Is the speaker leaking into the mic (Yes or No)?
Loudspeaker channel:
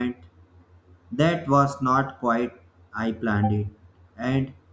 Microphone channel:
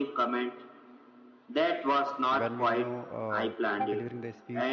Yes